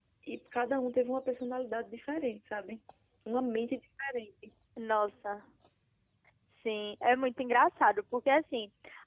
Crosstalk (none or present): none